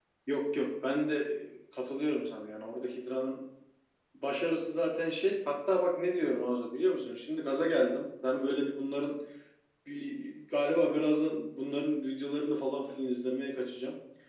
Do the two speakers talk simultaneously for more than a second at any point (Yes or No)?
No